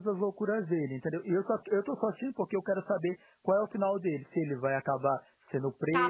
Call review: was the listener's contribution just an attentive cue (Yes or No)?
No